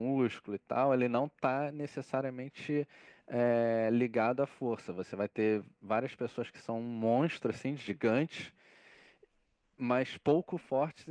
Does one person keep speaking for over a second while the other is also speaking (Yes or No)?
No